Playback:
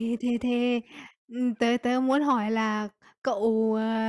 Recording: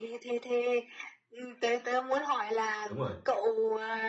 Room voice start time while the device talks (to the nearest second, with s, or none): 3 s